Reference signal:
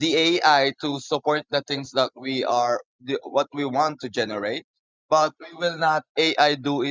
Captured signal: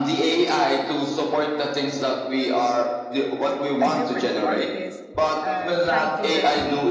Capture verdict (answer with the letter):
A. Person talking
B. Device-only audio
A